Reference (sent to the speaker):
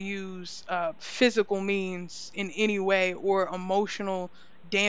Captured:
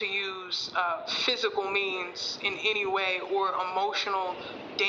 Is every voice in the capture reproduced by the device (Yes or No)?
Yes